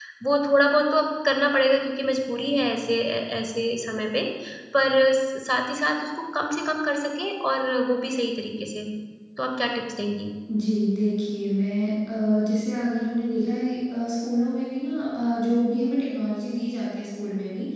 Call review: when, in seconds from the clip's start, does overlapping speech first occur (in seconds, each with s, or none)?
none